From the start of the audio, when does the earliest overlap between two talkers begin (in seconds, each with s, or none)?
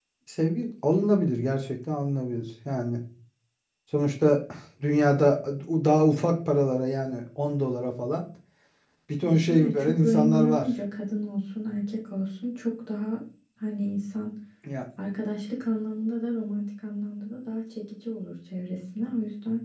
9.2 s